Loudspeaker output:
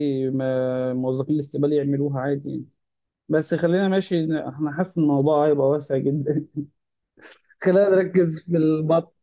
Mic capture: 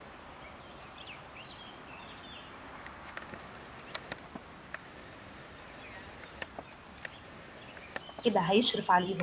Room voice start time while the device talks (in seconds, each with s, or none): 8.2 s